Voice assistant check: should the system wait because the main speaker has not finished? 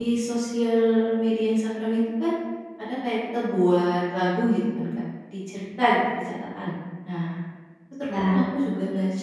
Yes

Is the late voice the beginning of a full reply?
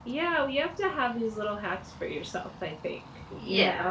Yes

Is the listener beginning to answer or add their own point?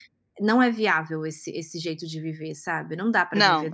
No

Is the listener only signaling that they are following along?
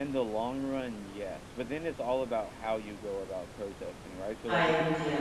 Yes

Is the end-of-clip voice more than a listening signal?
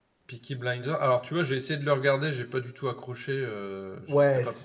Yes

